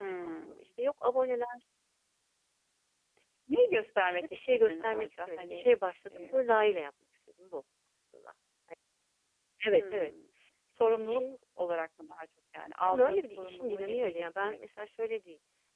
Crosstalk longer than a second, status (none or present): present